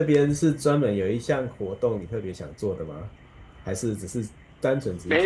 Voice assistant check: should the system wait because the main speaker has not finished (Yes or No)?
No